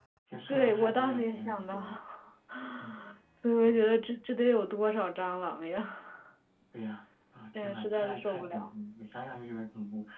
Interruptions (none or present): present